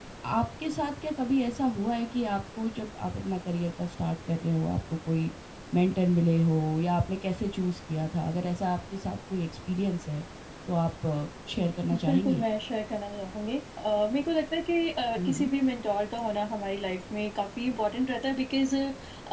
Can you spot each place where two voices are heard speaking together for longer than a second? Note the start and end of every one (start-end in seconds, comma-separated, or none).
none